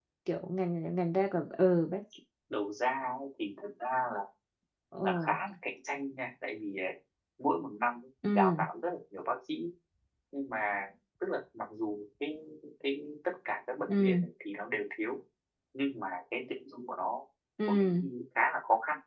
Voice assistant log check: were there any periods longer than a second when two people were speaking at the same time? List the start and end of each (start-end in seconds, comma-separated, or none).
none